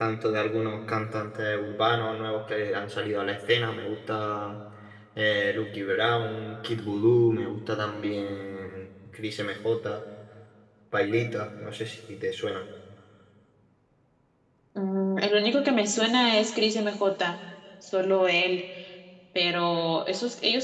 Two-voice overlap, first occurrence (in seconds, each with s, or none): none